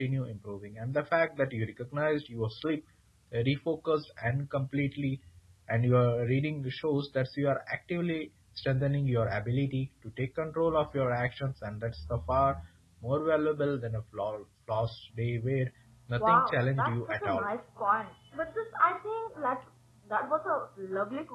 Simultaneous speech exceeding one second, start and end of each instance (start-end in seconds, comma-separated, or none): 16.2-17.5